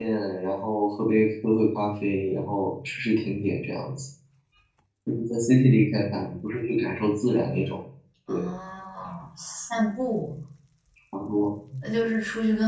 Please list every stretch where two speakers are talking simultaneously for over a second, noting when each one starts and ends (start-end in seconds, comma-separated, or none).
none